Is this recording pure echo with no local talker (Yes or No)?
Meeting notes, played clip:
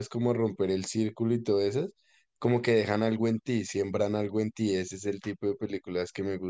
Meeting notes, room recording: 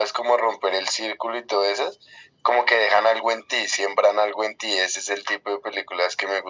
Yes